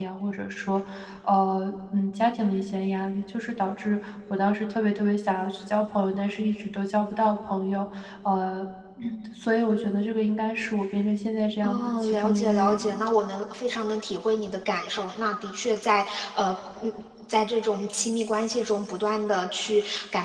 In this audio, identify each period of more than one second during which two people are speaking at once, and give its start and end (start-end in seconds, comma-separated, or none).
11.6-13.0